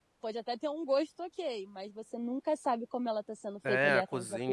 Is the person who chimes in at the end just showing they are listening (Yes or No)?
No